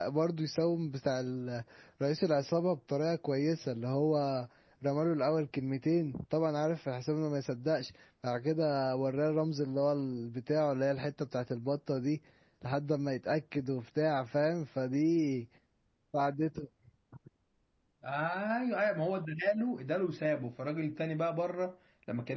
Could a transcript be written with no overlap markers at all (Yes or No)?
Yes